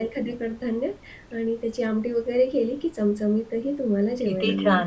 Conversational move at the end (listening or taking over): taking over